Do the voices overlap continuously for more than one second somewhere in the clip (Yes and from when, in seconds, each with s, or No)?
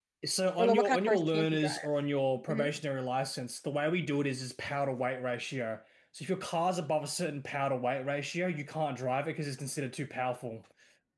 Yes, from 0.6 s